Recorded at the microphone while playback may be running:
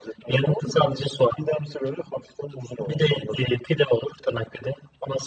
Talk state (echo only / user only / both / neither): echo only